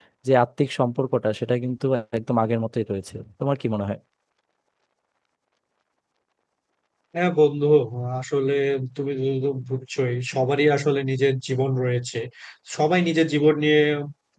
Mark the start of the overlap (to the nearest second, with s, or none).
none